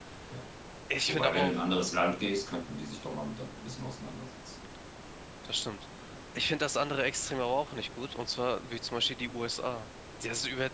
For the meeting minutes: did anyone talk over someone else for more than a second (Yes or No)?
No